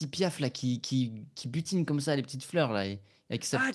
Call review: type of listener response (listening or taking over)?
taking over